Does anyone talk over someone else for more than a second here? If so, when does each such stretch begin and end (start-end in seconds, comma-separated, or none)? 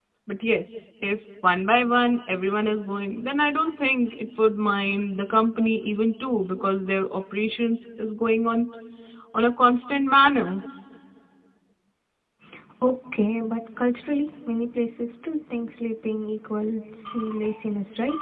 none